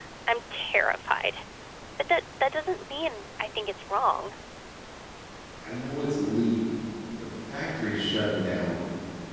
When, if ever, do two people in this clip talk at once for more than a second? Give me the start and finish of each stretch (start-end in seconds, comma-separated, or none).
none